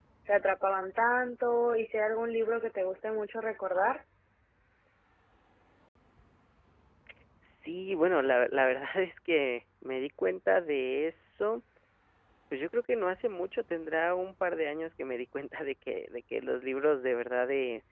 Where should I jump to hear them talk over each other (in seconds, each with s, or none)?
none